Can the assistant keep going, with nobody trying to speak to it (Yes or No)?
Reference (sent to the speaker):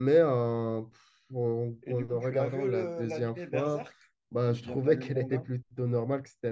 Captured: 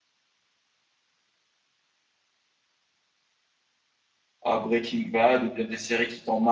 No